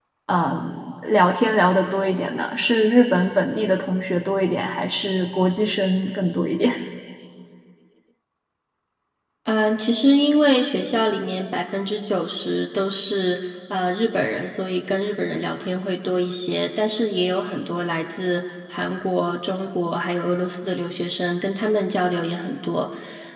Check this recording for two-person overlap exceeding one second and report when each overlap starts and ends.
none

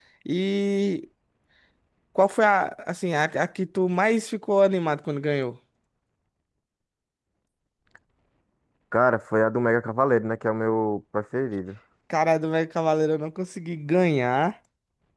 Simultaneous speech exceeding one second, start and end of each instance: none

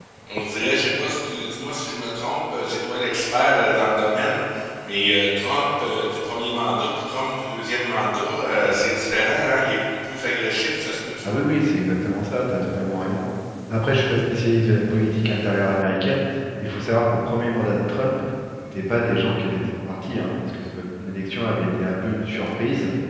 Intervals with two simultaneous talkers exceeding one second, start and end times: none

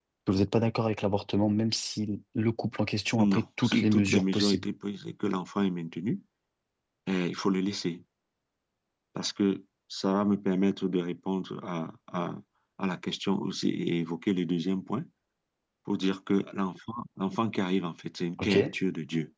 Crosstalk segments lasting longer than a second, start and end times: 3.2-4.7

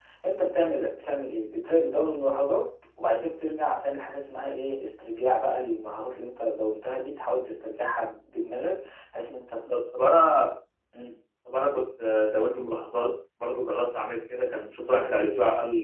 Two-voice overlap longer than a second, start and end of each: none

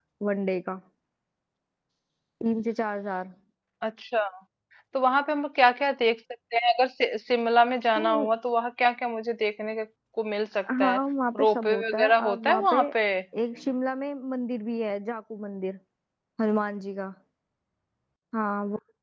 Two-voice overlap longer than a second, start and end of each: 11.4-12.8

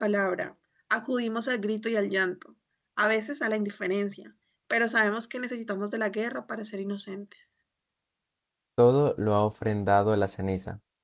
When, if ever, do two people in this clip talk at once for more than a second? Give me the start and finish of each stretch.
none

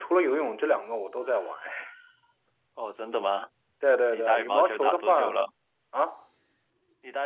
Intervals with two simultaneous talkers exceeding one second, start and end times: 4.1-5.4

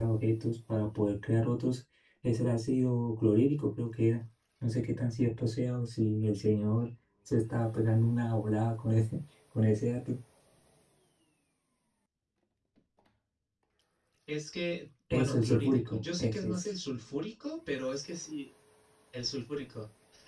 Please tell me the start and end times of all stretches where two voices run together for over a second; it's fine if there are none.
15.1-16.6

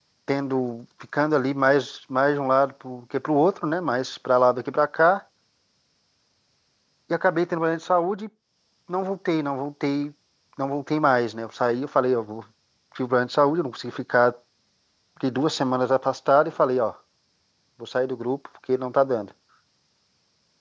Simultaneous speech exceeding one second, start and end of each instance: none

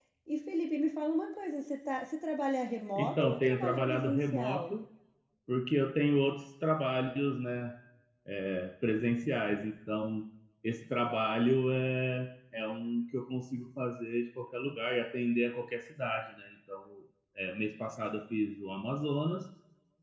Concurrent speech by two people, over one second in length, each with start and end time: 3.0-4.8

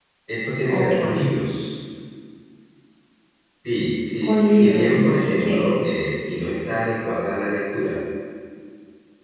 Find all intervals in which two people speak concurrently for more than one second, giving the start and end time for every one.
4.2-5.8

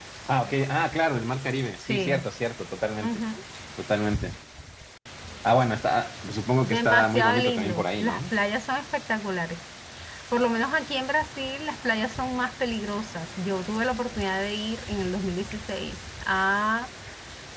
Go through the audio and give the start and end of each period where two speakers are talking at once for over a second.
6.6-8.2

